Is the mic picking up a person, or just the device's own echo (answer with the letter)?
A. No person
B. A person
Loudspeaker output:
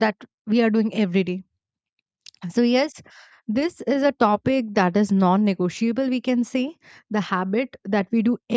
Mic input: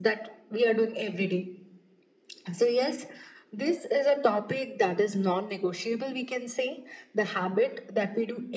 A